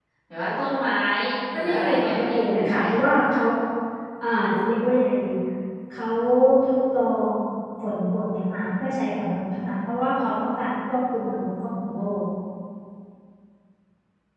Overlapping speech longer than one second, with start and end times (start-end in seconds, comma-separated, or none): 1.6-2.8